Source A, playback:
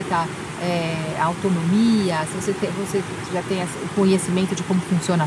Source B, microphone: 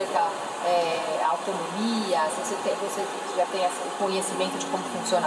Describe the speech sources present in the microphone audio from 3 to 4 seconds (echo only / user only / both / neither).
echo only